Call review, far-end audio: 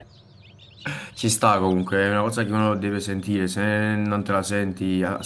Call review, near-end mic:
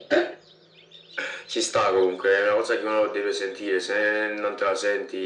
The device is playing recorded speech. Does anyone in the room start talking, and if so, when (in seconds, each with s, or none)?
none